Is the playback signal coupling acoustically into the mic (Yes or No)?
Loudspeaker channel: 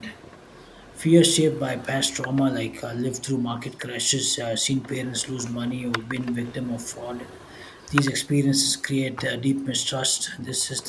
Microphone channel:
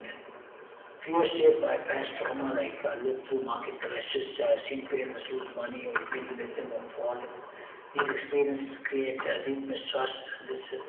Yes